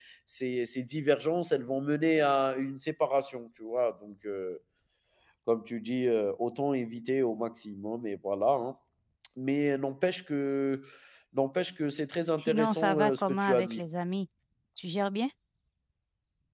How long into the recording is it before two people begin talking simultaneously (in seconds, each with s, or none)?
12.4 s